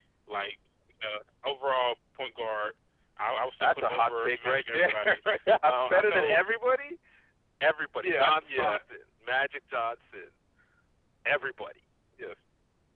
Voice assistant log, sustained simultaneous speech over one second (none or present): present